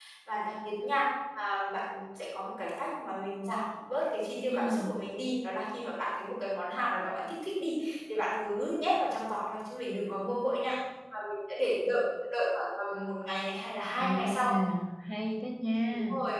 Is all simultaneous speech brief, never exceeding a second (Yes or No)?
Yes